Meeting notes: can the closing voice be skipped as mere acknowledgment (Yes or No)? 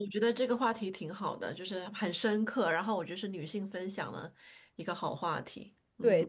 No